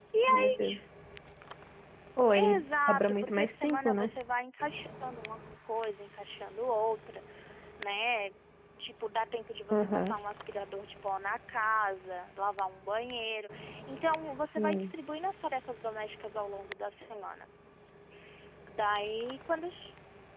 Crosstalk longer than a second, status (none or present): present